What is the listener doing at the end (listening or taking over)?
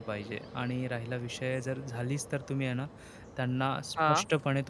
listening